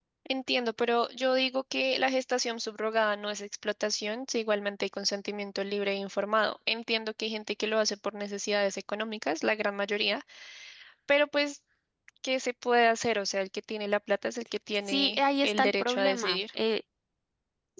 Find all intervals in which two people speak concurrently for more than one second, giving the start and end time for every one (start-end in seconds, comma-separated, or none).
14.9-16.4